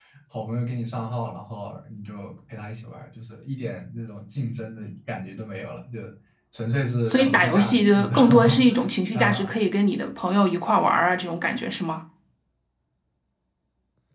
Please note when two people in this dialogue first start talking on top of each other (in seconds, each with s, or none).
7.1 s